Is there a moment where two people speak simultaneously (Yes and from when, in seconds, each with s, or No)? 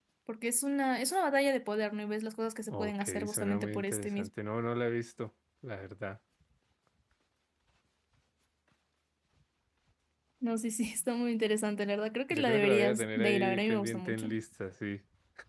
Yes, from 2.7 s